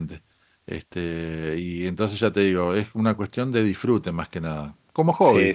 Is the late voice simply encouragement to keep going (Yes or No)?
No